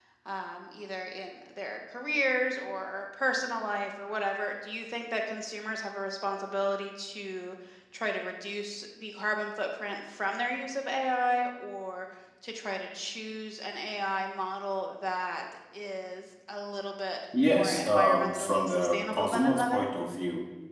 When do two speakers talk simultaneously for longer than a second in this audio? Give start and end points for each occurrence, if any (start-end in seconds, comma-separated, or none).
17.4-19.9